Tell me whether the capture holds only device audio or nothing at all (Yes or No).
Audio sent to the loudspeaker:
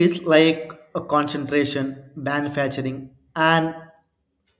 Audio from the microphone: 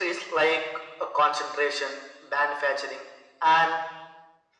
Yes